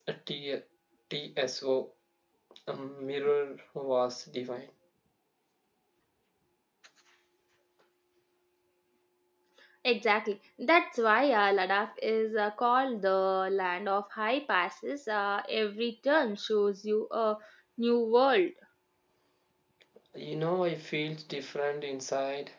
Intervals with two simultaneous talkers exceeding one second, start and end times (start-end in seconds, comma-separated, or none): none